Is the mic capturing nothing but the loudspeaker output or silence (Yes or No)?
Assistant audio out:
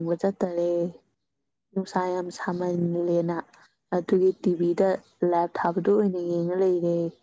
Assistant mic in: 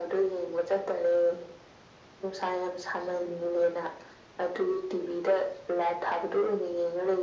Yes